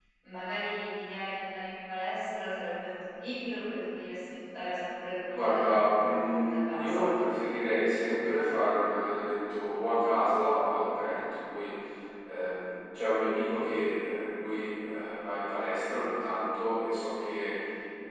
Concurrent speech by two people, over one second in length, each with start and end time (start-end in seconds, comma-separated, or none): 5.3-7.1